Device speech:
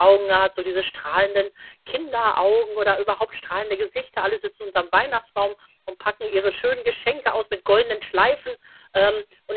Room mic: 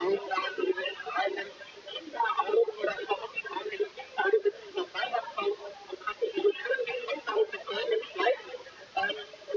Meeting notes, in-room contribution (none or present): none